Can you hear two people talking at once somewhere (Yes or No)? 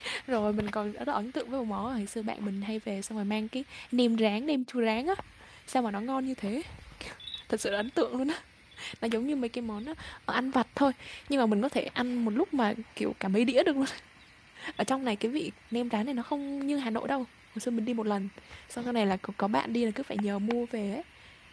No